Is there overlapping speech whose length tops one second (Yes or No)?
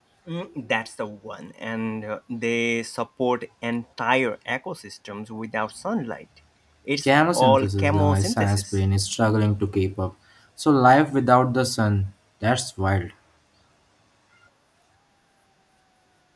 Yes